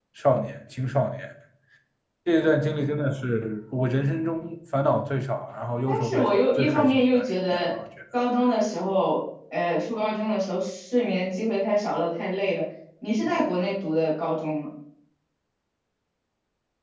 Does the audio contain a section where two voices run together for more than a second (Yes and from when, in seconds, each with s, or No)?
Yes, from 5.9 s